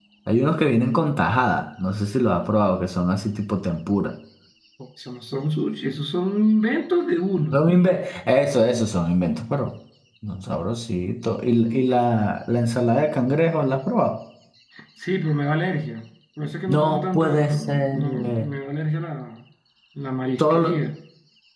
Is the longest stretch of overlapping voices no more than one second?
No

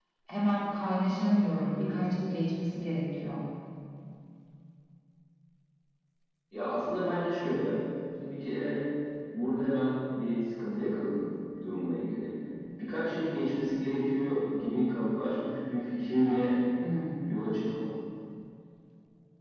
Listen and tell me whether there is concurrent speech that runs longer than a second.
No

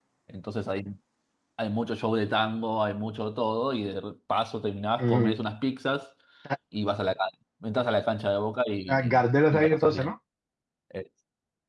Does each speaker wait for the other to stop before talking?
No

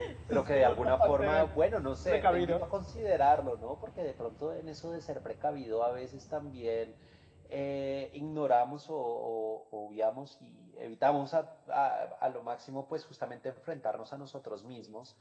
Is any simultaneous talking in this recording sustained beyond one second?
Yes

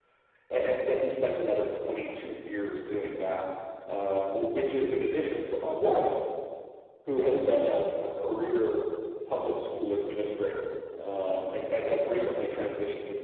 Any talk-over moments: No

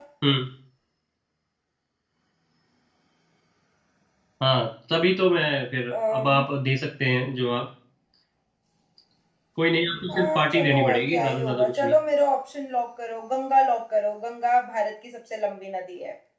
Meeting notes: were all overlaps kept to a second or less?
No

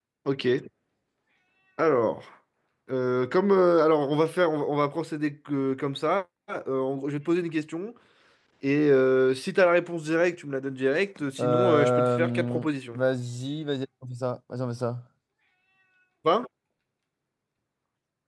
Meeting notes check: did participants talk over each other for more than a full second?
Yes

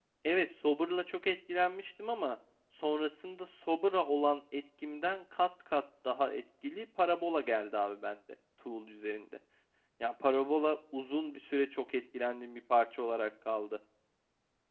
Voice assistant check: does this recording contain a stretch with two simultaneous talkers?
No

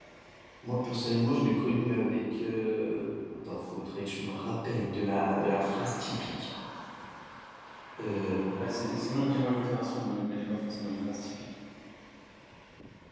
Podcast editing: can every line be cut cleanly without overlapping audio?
Yes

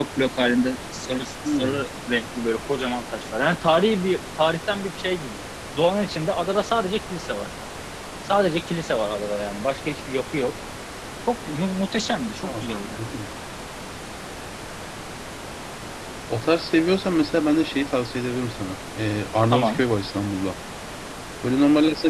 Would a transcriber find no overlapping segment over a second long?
Yes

